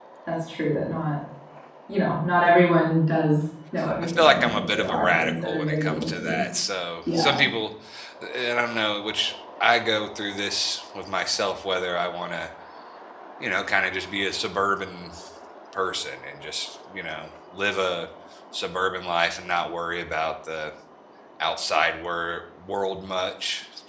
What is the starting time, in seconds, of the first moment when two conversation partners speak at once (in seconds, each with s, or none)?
4.0 s